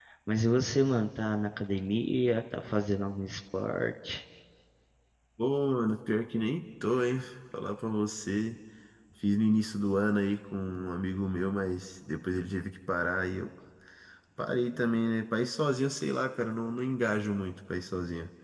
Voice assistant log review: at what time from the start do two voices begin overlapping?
none

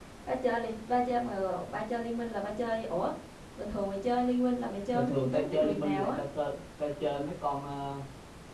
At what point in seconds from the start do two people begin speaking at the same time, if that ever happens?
4.9 s

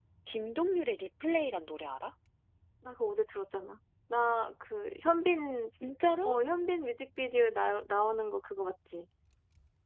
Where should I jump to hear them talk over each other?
none

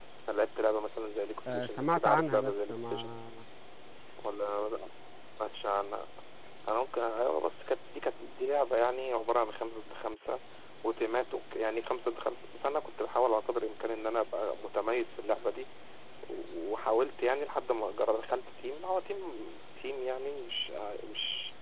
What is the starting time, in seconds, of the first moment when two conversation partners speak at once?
1.5 s

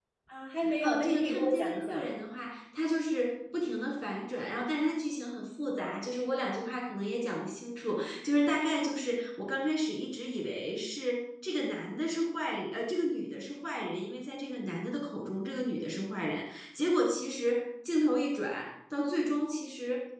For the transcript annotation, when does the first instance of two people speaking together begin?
0.8 s

